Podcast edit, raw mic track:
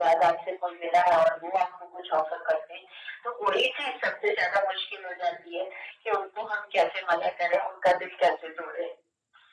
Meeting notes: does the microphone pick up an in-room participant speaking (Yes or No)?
No